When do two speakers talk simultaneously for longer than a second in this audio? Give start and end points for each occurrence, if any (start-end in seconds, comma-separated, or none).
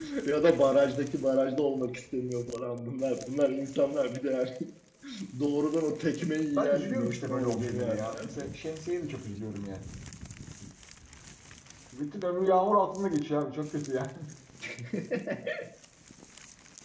6.5-8.3